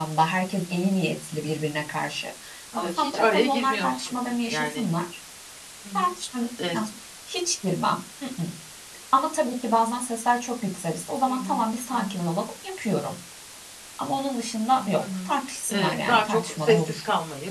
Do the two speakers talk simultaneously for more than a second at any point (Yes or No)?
Yes